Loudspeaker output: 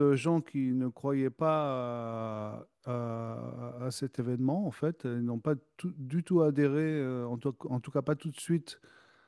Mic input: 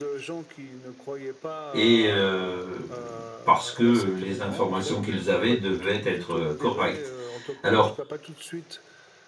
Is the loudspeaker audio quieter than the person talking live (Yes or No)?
Yes